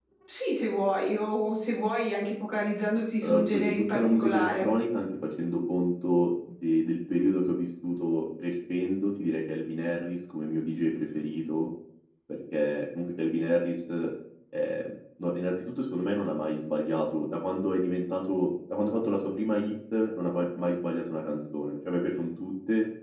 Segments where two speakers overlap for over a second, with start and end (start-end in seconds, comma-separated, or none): 3.2-4.7